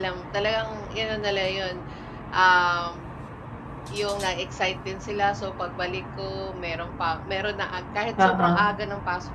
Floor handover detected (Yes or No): No